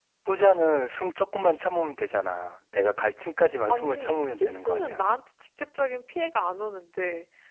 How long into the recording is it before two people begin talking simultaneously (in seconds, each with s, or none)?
3.7 s